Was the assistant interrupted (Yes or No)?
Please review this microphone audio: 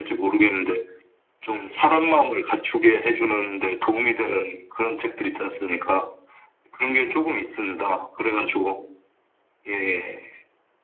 No